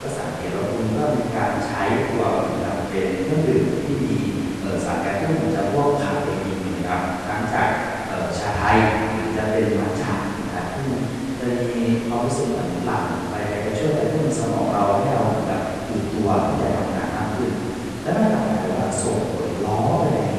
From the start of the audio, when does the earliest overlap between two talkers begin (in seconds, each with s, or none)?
none